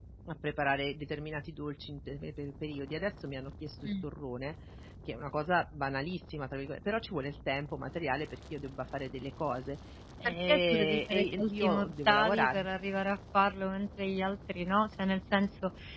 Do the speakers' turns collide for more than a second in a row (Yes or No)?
Yes